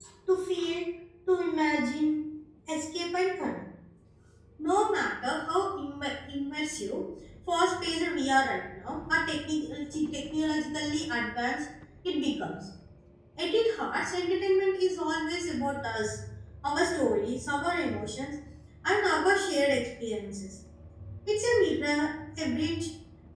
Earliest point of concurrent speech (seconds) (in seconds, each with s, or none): none